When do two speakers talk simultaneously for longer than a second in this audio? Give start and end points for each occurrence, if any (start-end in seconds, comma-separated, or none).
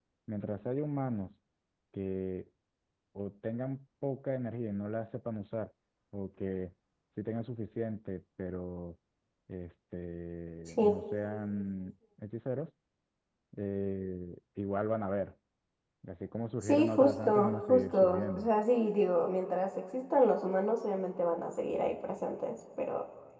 16.6-18.5